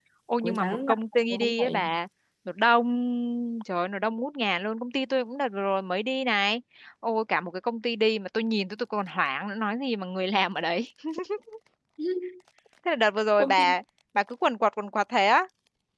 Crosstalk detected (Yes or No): Yes